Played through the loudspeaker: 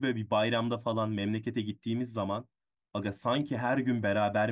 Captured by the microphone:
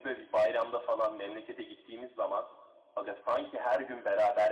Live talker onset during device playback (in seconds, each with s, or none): none